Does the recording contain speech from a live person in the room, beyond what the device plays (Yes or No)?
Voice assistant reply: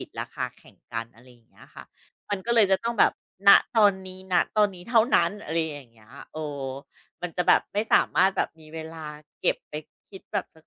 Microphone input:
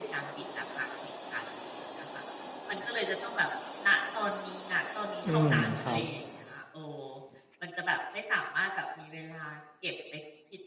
Yes